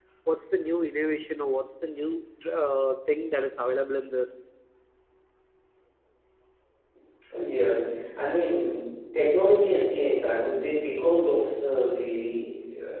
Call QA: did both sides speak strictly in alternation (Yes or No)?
Yes